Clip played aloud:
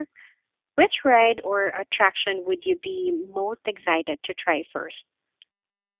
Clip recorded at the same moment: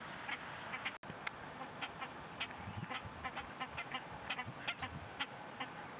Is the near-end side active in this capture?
No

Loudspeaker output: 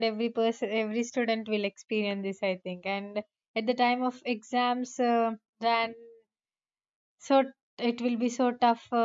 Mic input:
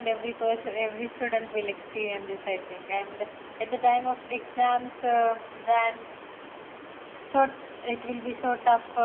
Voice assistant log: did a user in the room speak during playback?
No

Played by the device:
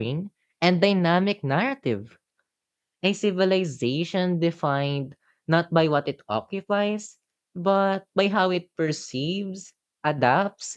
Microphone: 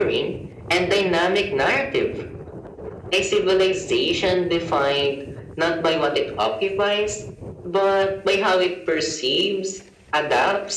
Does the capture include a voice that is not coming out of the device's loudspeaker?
No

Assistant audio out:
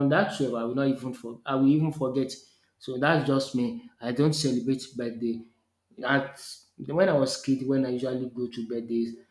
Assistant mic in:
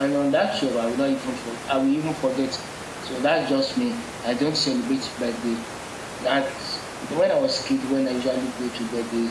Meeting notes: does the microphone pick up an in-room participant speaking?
No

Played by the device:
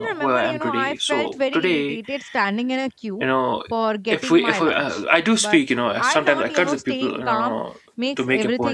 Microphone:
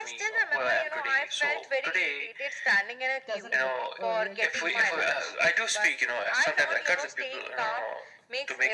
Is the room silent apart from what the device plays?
No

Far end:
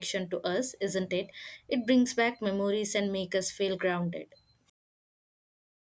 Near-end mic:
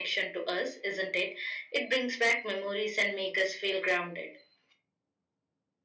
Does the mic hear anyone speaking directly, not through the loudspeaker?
No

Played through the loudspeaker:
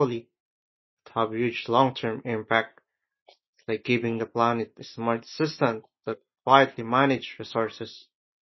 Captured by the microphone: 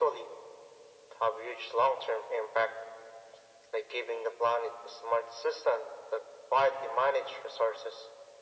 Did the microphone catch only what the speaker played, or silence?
Yes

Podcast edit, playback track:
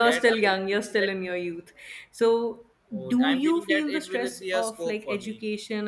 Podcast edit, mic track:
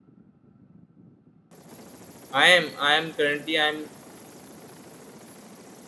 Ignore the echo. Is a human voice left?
Yes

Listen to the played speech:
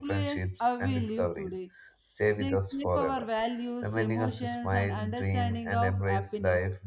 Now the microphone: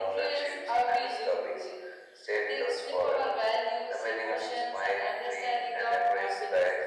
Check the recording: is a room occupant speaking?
No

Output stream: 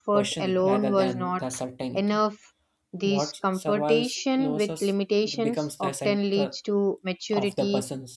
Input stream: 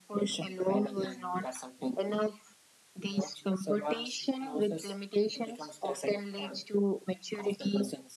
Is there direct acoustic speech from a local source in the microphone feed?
No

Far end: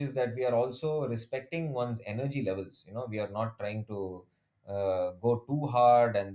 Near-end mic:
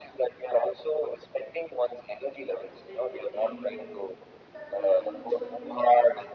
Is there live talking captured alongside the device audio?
Yes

